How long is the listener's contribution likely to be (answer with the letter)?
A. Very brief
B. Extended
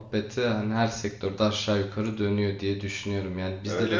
A